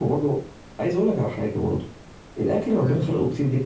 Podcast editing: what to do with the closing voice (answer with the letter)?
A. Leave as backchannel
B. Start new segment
A